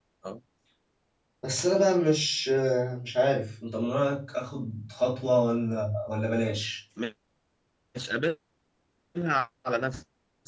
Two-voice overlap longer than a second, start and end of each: none

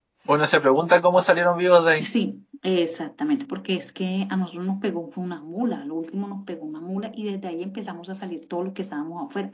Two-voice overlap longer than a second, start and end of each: none

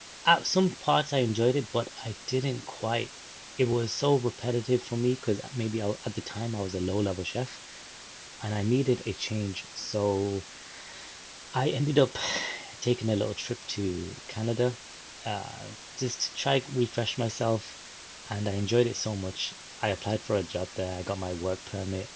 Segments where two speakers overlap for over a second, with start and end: none

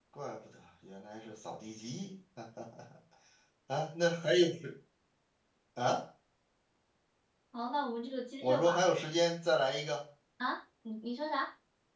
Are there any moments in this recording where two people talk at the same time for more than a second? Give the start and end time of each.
none

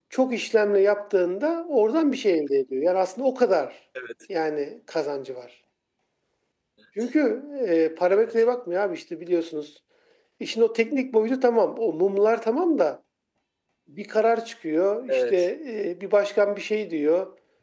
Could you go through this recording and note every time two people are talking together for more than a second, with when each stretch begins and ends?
none

